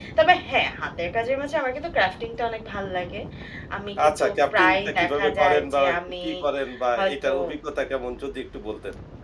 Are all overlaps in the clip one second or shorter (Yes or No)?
No